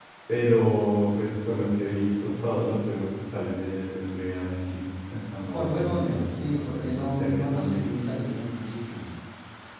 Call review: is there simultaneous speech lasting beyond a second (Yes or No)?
Yes